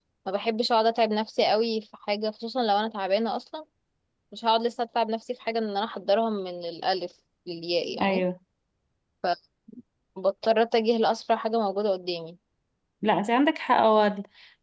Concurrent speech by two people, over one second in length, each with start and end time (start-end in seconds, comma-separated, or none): none